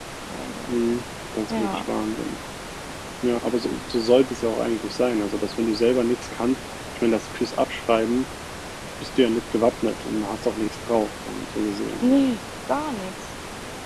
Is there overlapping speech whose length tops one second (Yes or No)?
No